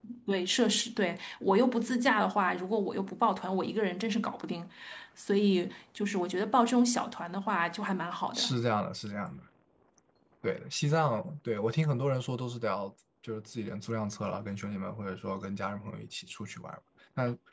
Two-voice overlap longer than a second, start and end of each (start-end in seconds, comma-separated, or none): none